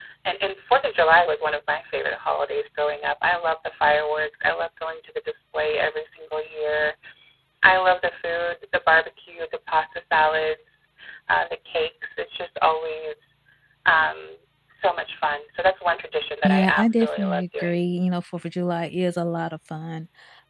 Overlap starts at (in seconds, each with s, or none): 16.4 s